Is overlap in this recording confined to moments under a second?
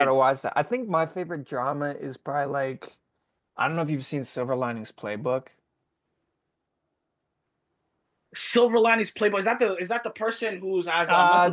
Yes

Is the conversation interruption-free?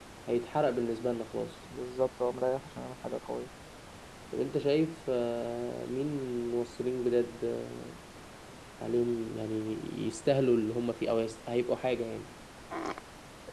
Yes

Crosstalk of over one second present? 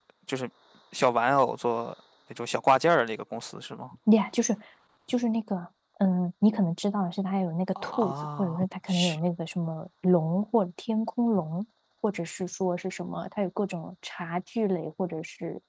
Yes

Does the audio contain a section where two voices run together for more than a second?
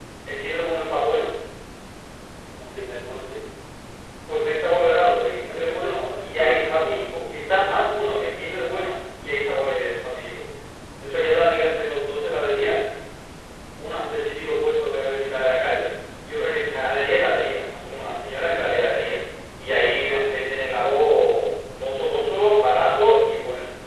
Yes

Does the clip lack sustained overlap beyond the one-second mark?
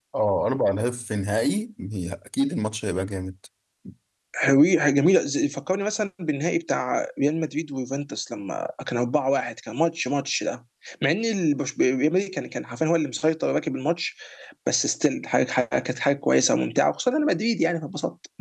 Yes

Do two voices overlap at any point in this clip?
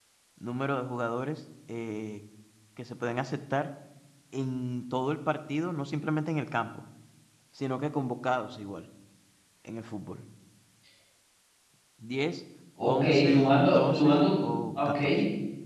Yes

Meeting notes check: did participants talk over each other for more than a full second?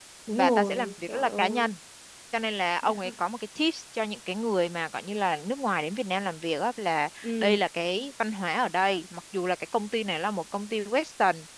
Yes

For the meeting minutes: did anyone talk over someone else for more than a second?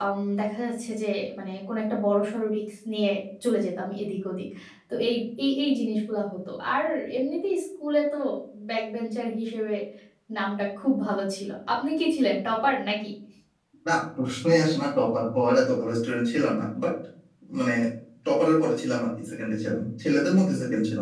No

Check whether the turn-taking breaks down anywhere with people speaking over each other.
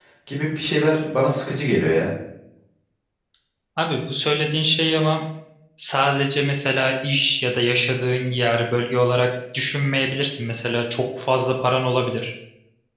No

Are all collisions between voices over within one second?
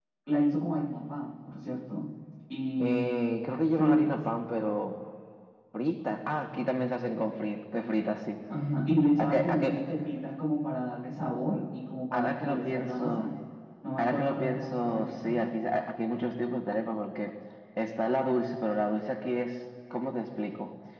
No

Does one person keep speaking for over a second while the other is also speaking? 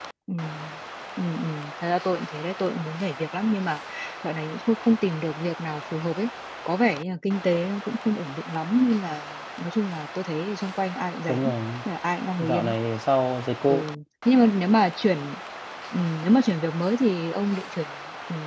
No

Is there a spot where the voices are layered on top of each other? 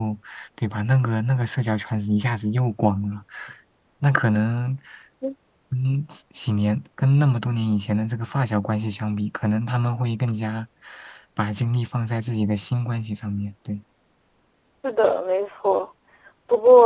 No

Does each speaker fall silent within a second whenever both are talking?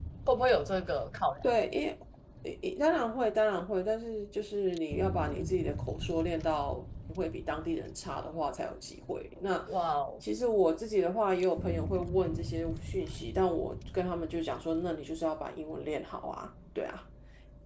Yes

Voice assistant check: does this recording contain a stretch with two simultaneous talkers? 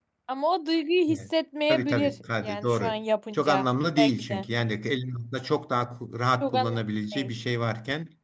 Yes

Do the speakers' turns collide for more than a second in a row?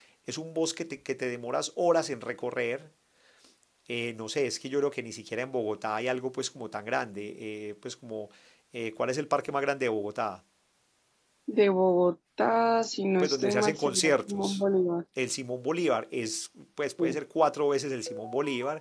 Yes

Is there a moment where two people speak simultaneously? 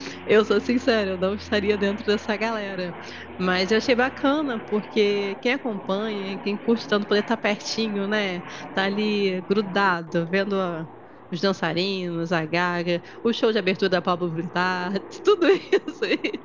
No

